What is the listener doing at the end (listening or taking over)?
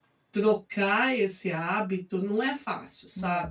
taking over